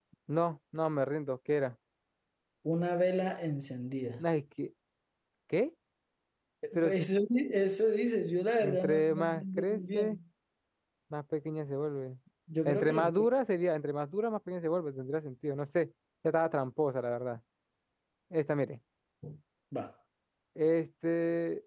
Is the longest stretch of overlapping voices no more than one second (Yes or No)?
No